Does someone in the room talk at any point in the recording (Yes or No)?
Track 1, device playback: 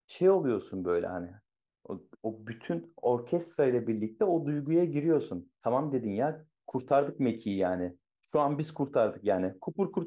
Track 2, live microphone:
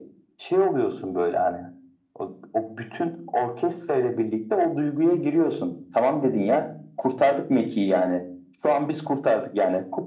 No